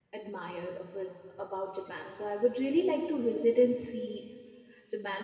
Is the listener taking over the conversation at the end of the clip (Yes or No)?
No